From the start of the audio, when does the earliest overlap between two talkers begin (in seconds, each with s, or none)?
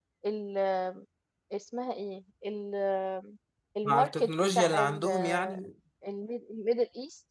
3.8 s